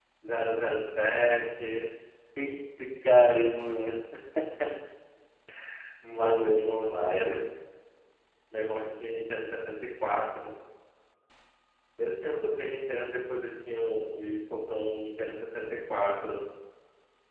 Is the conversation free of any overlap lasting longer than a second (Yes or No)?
No